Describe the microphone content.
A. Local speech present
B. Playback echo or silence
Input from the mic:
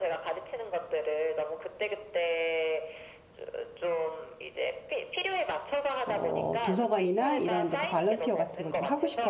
A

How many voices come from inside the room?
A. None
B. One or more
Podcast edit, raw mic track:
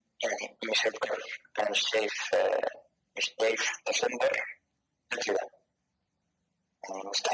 A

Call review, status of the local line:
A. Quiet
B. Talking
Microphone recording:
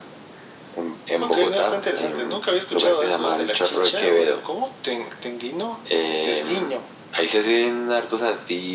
A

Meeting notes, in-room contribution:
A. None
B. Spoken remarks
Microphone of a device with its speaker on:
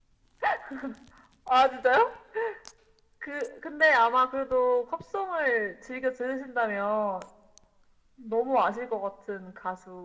A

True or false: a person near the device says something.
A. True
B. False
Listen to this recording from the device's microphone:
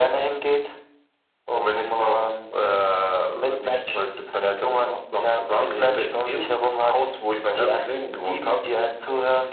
B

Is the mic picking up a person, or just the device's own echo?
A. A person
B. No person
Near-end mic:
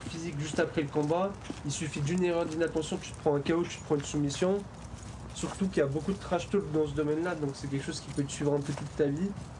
A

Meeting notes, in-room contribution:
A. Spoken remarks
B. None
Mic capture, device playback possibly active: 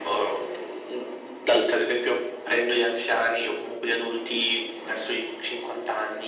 B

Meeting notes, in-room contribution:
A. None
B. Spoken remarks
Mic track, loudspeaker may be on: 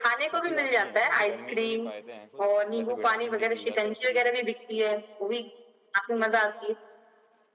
B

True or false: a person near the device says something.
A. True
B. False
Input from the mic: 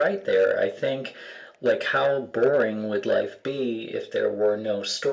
B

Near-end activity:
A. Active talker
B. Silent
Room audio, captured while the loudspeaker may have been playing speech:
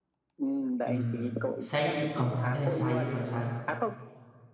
A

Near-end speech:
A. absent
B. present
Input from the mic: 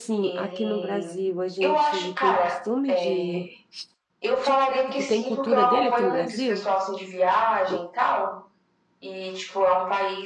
B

